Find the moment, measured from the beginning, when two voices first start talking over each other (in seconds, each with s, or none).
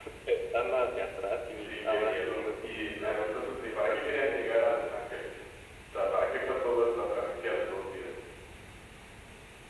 1.5 s